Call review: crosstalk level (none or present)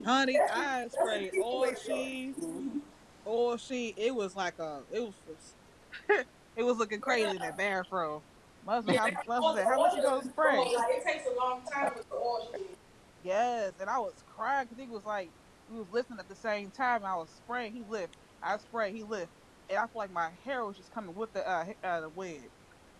present